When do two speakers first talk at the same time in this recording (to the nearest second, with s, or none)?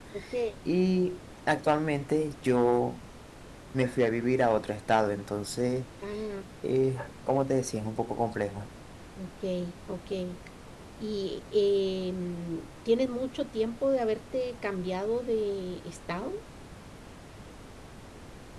none